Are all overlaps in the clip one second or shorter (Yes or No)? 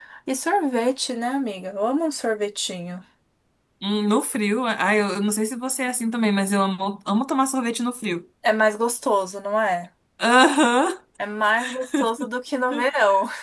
Yes